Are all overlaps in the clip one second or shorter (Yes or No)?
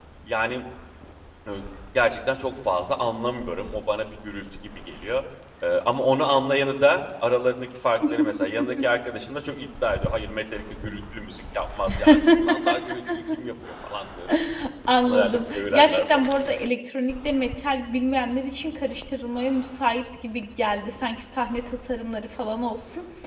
No